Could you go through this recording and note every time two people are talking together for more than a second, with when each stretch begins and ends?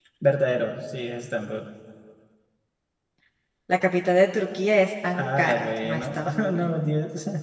5.2-6.7

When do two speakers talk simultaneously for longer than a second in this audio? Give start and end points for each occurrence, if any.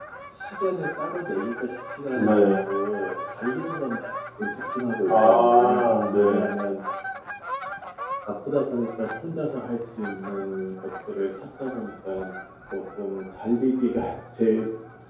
5.1-6.5

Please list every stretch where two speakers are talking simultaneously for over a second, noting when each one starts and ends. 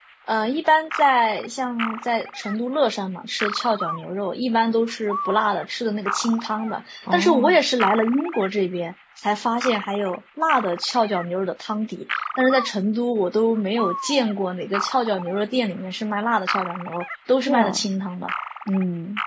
none

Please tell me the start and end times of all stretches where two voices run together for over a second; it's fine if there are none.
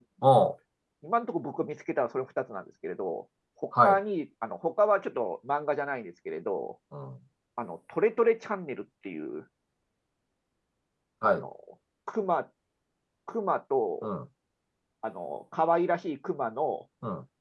none

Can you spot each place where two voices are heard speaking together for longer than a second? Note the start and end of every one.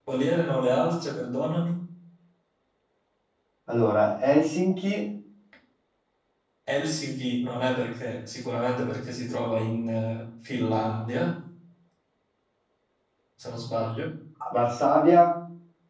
none

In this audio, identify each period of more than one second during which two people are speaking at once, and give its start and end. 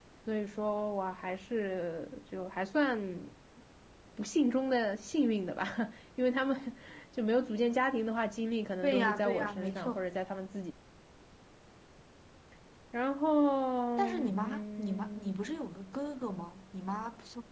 8.8-10.1, 14.0-15.4

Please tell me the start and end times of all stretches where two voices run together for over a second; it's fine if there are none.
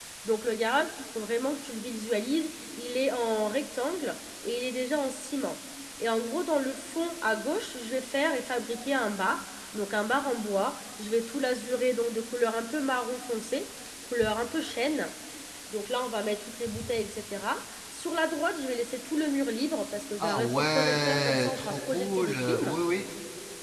20.2-22.8

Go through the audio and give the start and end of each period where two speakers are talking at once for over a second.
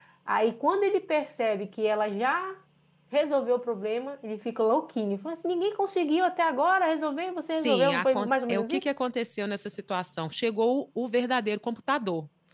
7.5-8.8

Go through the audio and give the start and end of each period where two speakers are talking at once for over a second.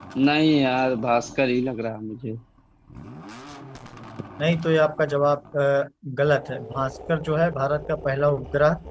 none

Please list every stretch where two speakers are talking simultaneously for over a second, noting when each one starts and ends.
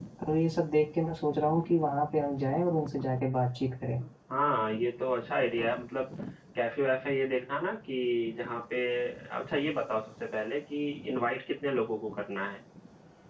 none

